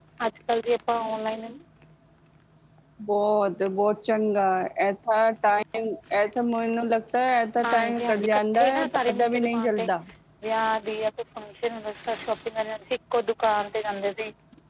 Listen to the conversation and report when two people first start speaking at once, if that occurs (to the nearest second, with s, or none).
8 s